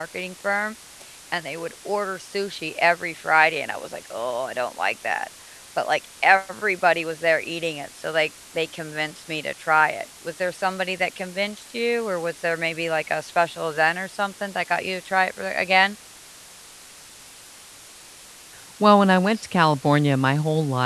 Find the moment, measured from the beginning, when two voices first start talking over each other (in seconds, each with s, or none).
none